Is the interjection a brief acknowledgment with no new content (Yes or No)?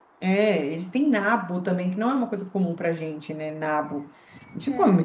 Yes